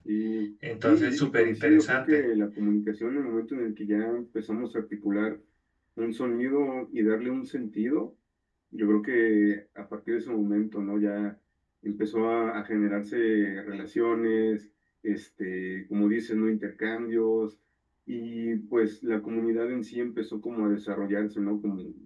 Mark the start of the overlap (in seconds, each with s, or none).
0.8 s